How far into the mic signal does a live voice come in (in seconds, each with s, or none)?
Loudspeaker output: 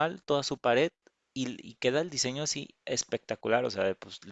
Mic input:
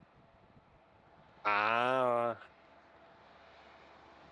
1.4 s